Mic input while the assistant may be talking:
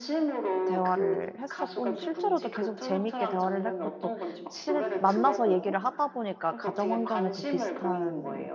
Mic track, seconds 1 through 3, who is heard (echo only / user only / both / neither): both